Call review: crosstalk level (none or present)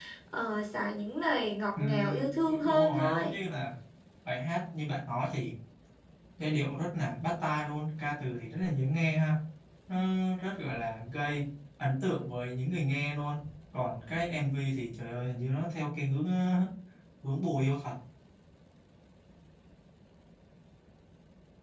present